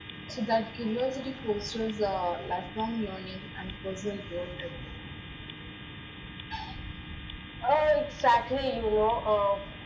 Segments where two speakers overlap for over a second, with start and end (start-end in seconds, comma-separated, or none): none